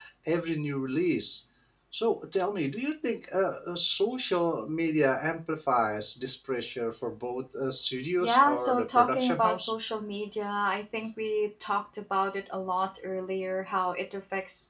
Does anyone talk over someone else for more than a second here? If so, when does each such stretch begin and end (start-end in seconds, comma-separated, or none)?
8.2-9.7